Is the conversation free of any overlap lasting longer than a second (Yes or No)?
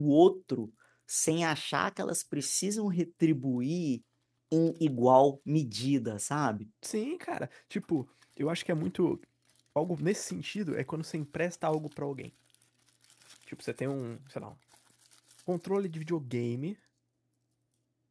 Yes